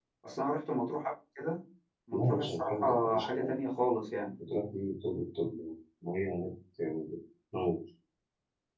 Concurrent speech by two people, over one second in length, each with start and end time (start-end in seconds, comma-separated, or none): 2.1-3.5